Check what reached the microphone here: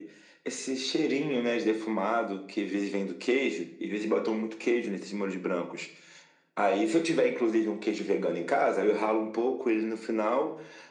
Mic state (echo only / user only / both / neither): echo only